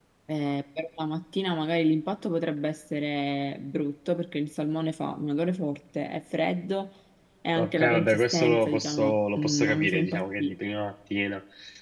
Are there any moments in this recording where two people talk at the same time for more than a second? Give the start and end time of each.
7.6-10.5

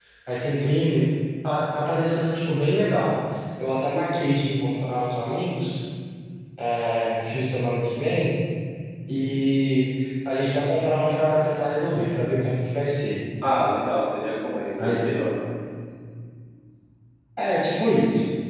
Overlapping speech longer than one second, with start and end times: none

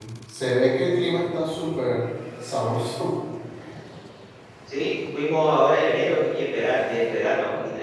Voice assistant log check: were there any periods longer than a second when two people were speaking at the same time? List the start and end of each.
none

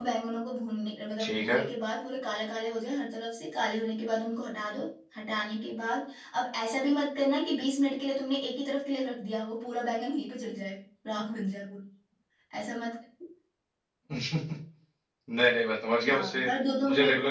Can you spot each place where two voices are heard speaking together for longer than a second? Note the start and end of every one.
none

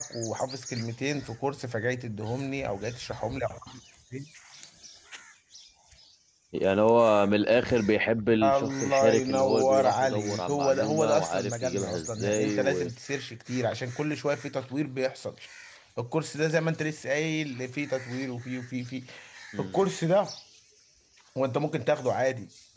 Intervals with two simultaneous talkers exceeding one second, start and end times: 8.4-12.9

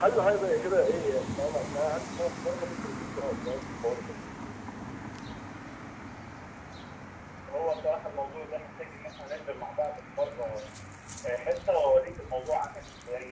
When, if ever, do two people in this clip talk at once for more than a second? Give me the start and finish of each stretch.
none

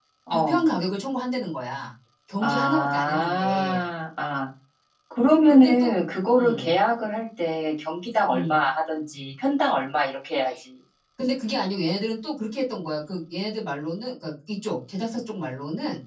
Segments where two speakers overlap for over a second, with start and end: 2.4-3.8

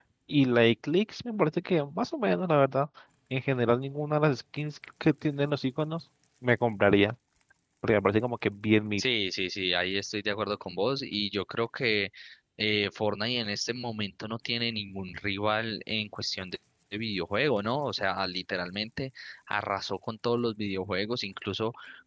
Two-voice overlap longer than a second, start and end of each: none

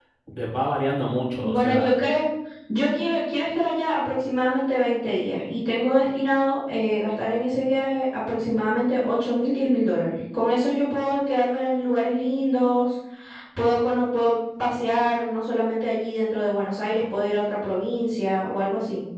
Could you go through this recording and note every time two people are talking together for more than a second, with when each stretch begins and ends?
none

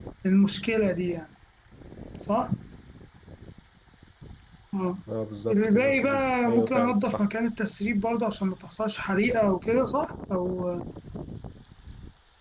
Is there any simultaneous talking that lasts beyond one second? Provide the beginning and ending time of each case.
5.5-7.2

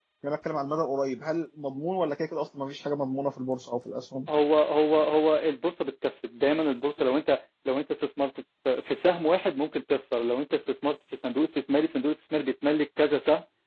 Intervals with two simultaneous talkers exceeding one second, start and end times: none

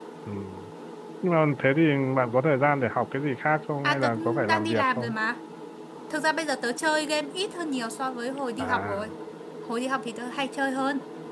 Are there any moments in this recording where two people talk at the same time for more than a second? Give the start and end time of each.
3.8-5.1

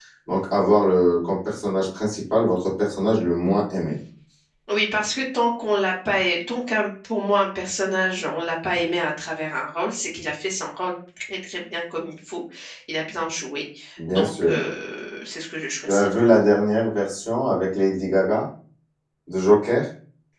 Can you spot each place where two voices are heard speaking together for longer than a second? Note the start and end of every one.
none

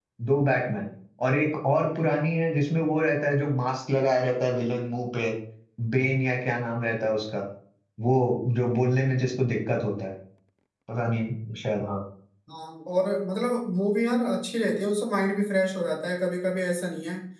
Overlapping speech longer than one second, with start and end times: none

